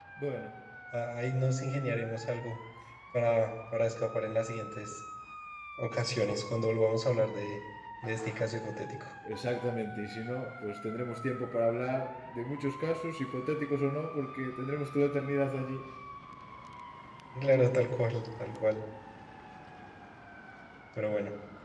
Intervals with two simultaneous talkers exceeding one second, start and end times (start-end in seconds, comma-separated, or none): none